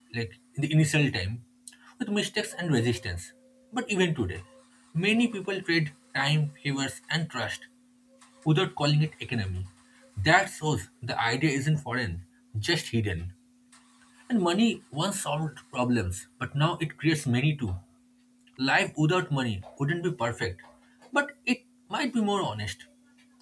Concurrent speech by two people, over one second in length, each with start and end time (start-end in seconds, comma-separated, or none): none